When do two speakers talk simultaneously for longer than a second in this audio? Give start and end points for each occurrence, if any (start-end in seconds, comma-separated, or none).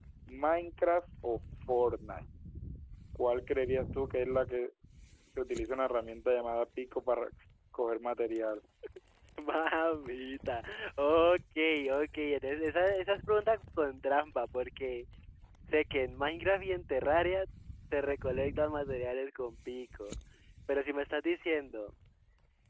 none